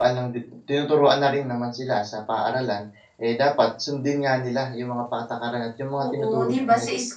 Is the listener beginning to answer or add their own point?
Yes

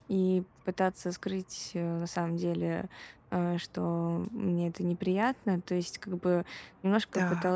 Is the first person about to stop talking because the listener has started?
No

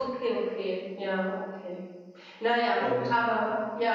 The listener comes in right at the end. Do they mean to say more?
No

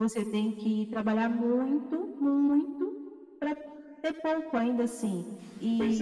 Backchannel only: Yes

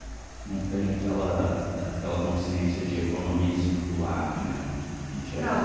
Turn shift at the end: Yes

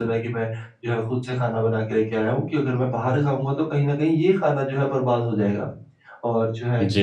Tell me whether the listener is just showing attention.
Yes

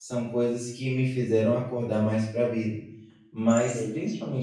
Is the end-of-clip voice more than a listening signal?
No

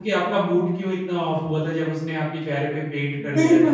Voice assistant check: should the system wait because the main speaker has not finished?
No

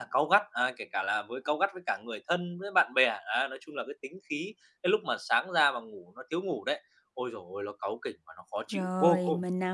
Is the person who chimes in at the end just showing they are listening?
No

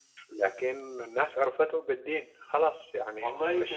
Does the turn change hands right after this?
Yes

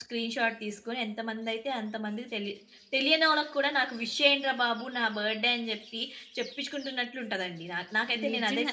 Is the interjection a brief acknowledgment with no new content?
No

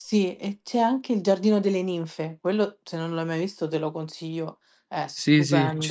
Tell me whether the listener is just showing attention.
No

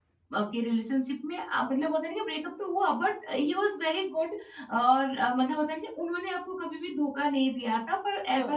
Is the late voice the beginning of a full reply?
No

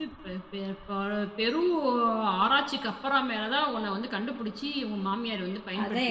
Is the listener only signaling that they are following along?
No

